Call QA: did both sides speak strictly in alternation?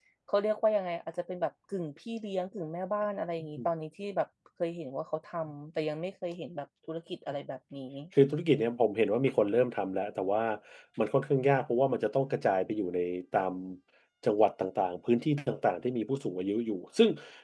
Yes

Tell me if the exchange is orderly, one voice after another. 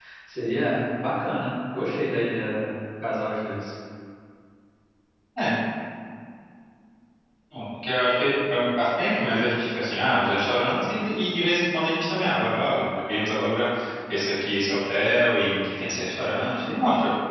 Yes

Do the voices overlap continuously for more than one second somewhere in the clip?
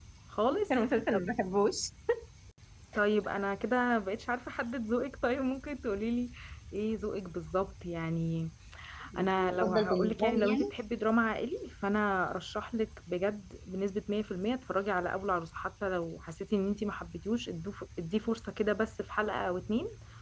Yes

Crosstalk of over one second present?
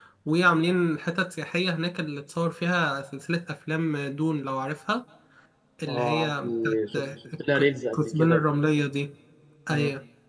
Yes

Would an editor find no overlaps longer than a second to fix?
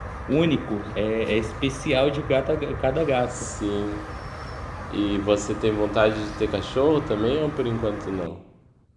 Yes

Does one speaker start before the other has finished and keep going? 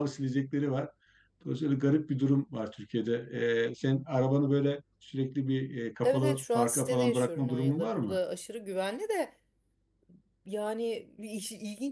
Yes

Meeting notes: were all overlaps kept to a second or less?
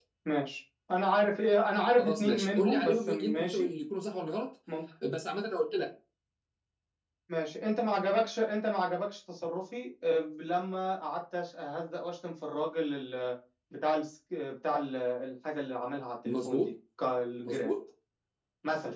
No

